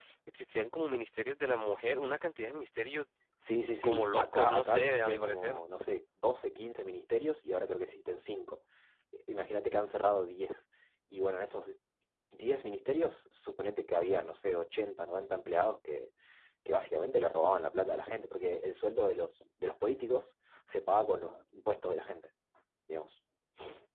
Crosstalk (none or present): present